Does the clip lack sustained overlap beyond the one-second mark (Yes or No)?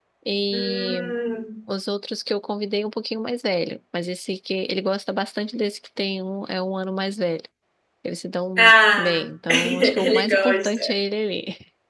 No